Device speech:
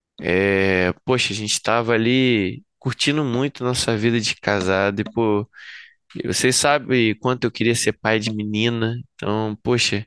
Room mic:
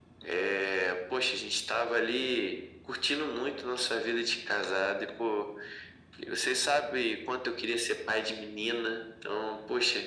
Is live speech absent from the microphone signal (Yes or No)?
Yes